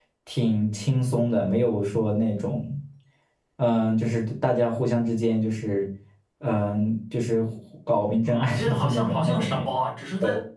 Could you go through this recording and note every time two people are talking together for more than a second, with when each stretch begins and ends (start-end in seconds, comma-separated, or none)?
8.2-9.7